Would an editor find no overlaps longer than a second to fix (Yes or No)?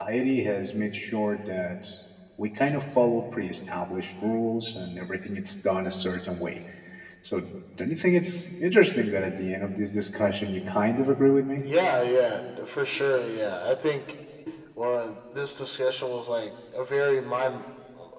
Yes